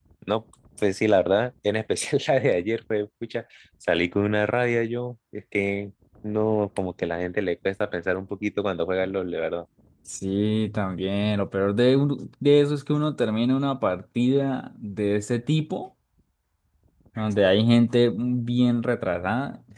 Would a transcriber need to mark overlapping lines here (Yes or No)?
No